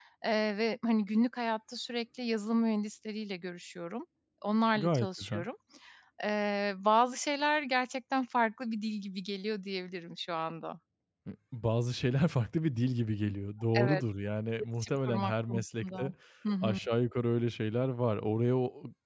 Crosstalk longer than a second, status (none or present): present